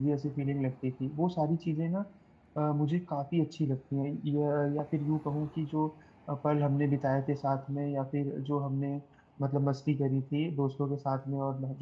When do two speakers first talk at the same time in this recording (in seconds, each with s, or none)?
none